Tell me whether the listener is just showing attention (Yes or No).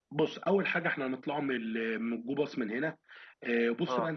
Yes